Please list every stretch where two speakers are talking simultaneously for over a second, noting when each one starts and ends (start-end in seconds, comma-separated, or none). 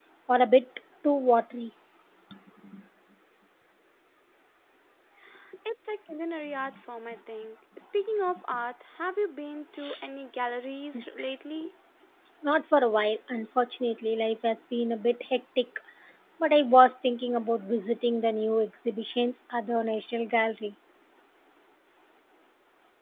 none